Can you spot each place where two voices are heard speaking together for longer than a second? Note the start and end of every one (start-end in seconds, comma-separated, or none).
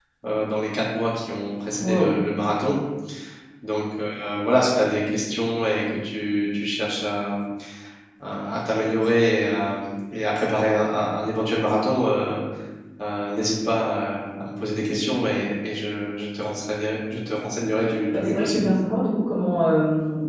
none